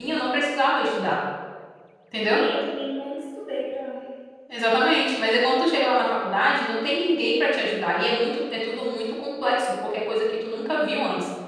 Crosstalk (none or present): none